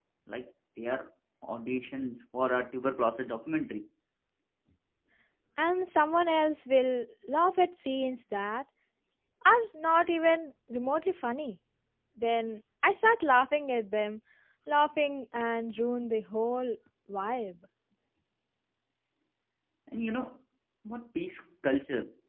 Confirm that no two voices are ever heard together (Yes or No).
Yes